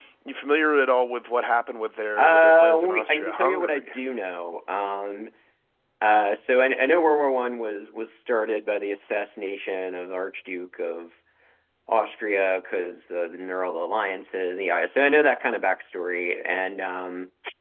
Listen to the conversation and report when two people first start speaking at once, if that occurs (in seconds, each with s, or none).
2.2 s